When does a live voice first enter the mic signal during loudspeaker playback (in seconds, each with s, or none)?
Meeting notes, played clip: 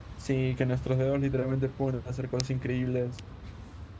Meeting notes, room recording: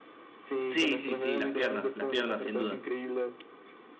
0.7 s